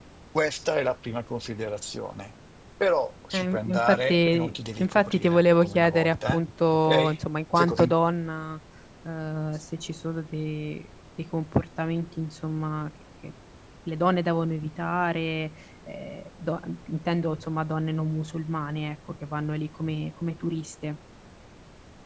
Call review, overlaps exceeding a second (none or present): present